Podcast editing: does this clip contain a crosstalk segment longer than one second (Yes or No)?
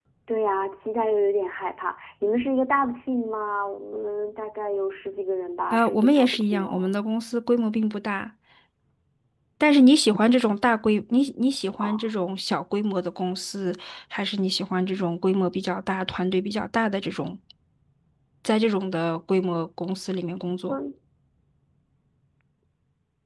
Yes